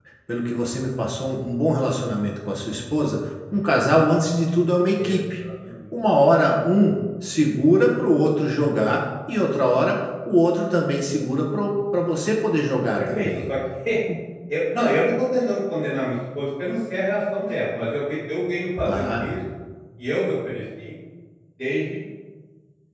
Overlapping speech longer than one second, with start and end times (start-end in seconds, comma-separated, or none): none